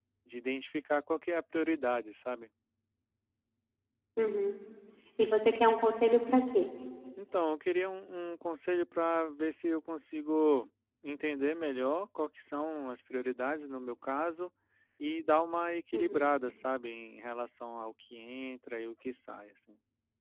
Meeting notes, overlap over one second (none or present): none